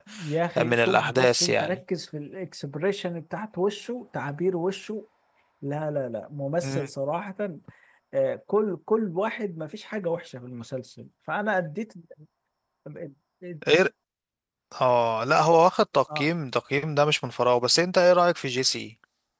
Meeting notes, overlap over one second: present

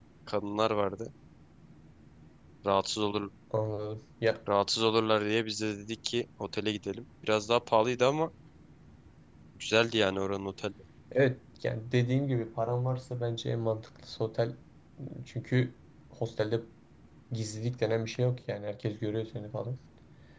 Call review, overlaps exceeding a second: none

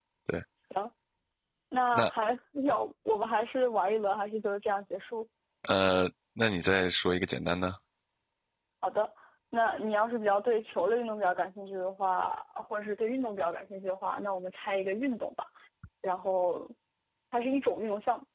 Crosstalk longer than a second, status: none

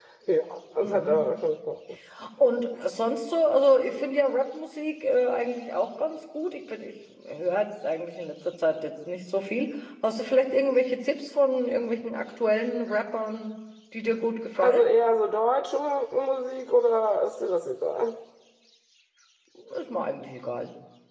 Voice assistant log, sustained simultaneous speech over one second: none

